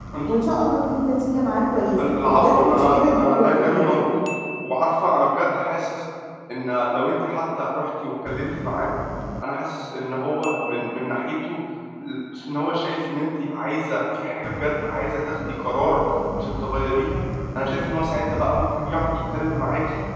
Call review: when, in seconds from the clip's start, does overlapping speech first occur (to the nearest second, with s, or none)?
2 s